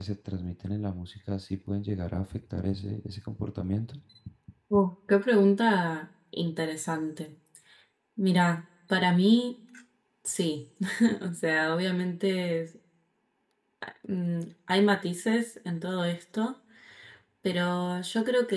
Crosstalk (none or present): none